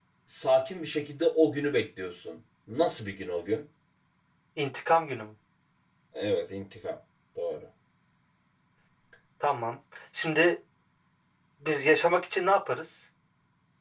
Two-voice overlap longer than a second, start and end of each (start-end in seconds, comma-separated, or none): none